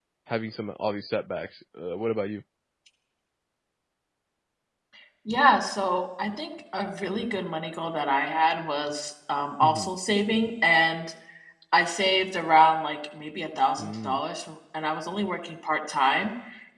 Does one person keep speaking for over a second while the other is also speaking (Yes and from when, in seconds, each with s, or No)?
No